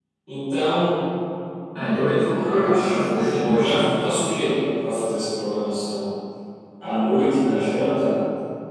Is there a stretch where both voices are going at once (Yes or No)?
Yes